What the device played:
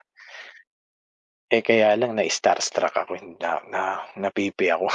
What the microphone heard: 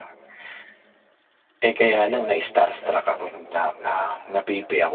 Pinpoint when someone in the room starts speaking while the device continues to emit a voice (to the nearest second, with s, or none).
none